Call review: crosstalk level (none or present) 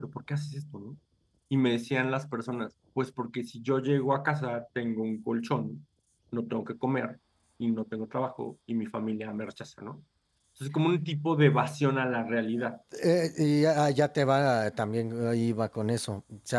none